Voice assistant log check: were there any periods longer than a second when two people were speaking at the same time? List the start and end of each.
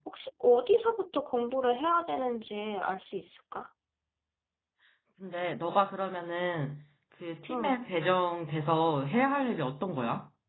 none

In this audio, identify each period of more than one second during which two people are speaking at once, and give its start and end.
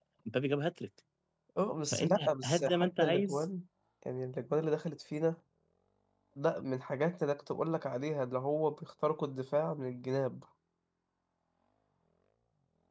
1.9-3.4

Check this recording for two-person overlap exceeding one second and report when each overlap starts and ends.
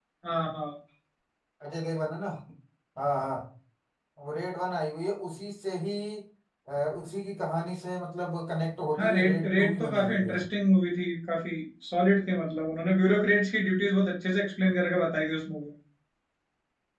9.0-10.3

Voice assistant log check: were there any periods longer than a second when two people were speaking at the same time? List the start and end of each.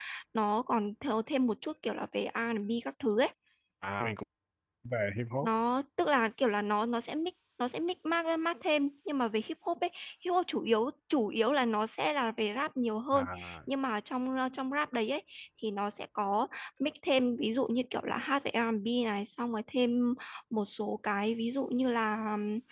none

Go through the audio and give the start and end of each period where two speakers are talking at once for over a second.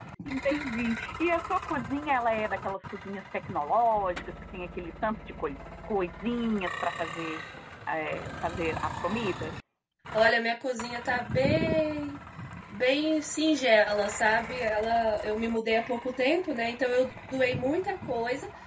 none

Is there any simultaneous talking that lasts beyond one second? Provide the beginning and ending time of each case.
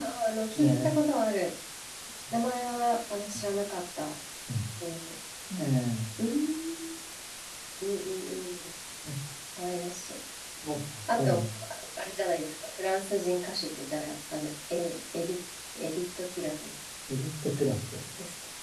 none

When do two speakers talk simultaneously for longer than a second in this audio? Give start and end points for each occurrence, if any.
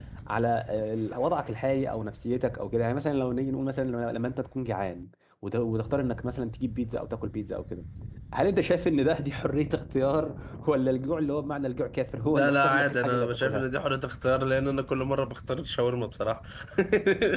12.3-13.6

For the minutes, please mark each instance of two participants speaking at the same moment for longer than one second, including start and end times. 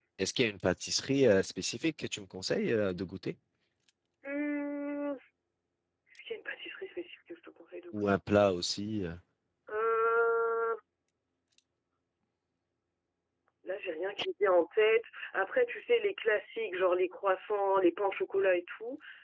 none

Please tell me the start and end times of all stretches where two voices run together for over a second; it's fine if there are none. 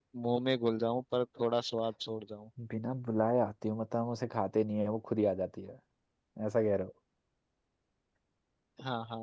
none

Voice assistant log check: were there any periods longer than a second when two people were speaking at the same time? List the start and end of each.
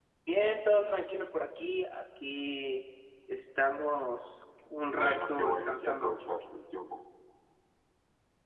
4.9-6.1

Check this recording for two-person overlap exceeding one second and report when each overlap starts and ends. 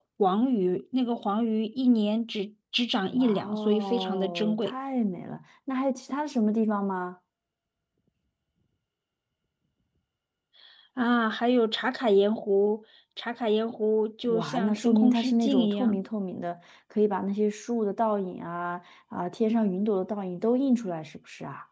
3.2-4.7, 14.3-16.0

